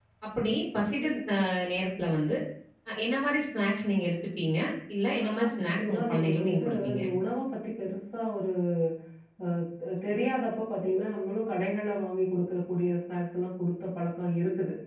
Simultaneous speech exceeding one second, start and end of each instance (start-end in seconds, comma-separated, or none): 5.3-7.0